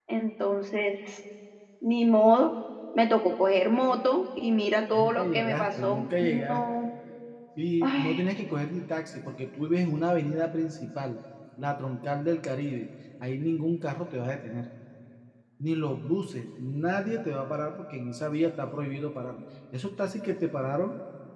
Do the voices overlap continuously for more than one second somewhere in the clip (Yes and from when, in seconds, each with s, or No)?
Yes, from 4.9 s